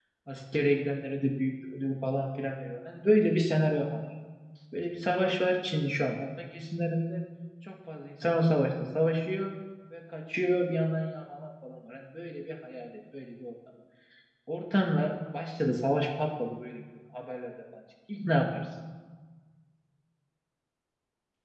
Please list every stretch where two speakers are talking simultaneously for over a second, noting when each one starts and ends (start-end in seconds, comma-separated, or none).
none